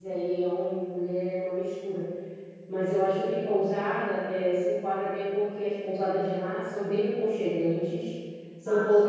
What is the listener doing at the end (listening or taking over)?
listening